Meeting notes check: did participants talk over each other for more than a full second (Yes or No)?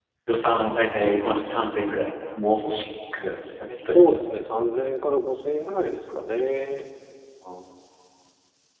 No